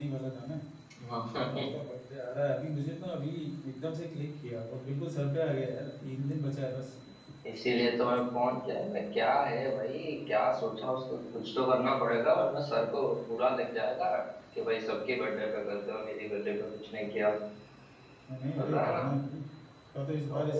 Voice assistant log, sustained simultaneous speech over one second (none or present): none